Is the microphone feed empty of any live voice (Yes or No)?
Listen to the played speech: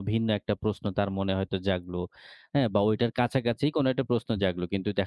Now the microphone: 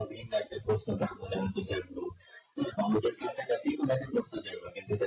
Yes